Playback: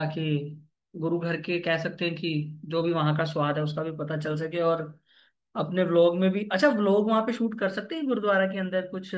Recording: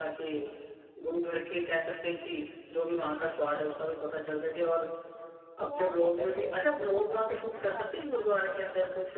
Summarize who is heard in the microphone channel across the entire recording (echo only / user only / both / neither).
both